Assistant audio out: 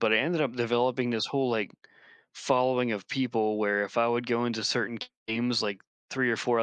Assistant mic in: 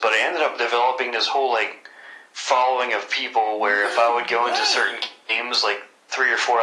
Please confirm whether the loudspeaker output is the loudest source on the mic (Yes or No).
Yes